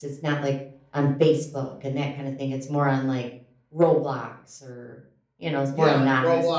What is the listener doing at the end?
taking over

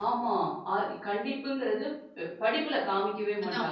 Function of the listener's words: taking over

